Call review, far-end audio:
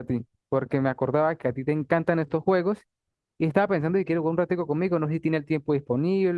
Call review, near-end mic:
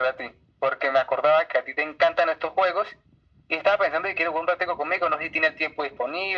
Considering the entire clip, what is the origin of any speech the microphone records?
echo only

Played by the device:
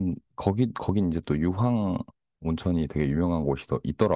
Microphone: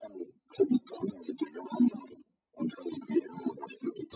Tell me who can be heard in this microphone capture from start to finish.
echo only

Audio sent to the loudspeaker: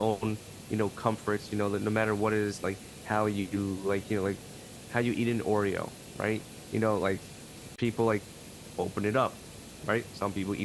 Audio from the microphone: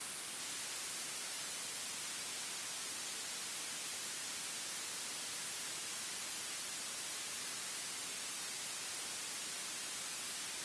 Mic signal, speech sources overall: neither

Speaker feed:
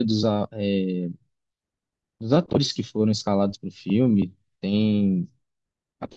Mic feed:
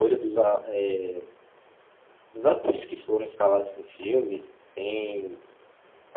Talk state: echo only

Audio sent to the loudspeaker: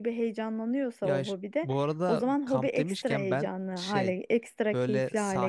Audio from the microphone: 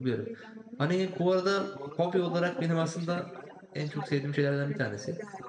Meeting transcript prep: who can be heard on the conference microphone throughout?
both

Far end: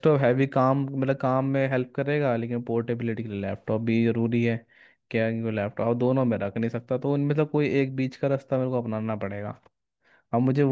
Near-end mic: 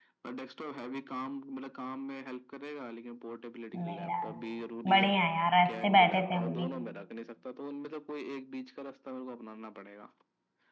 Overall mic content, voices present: both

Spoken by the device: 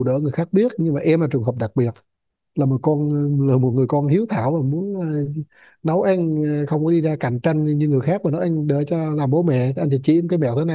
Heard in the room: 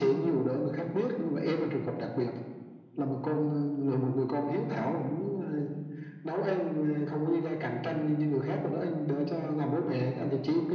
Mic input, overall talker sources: echo only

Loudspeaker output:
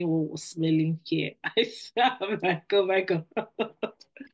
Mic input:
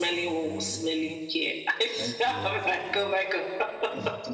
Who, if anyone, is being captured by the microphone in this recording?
both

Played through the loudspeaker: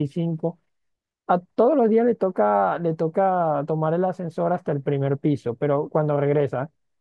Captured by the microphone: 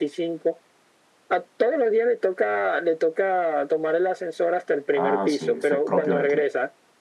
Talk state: both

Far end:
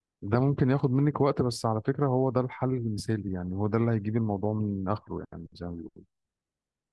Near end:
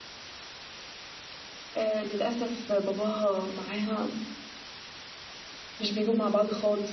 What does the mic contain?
user only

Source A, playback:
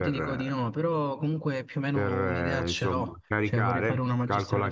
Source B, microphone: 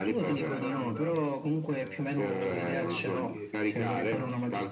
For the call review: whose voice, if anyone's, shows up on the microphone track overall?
both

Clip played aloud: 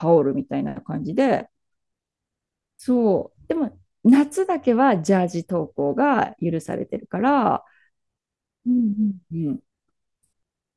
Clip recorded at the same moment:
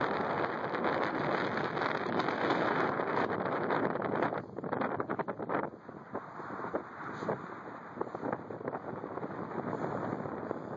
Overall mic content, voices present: neither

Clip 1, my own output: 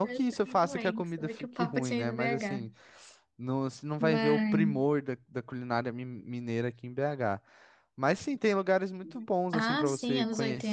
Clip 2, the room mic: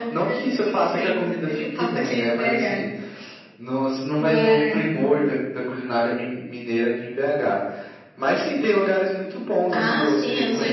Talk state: echo only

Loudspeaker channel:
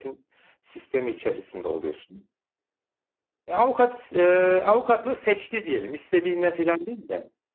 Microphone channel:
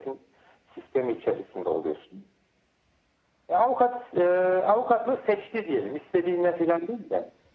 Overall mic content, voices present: echo only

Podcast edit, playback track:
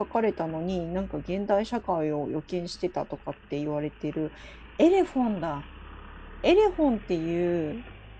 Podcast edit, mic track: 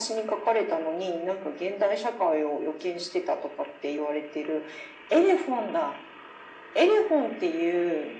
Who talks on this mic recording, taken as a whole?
echo only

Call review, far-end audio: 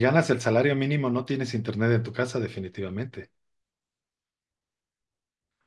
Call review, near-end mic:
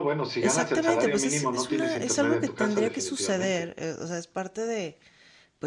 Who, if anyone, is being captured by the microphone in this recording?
both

